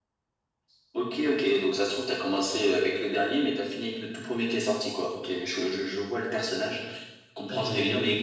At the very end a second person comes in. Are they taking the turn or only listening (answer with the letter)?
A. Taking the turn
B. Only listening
B